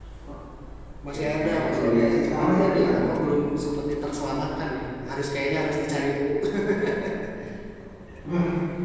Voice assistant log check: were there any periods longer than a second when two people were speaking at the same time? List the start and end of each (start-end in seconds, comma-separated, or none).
1.1-3.1